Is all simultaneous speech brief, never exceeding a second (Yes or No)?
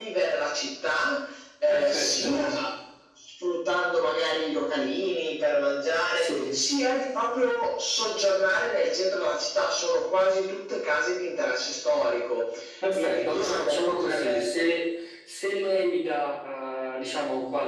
No